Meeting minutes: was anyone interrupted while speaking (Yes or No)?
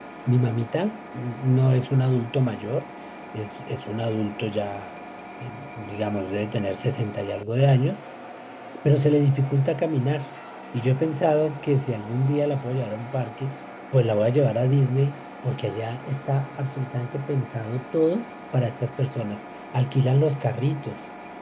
No